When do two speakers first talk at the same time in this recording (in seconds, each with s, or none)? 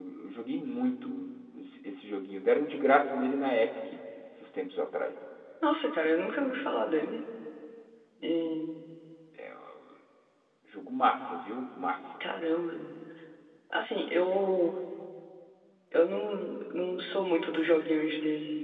none